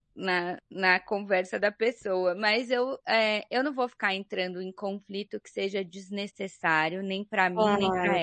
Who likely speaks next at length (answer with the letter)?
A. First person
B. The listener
B